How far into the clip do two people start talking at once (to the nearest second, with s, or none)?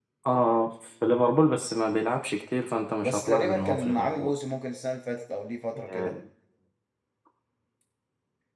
3 s